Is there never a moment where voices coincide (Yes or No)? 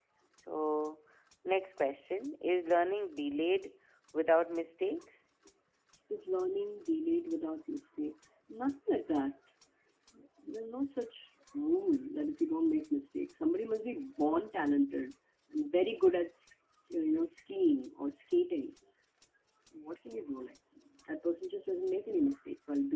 Yes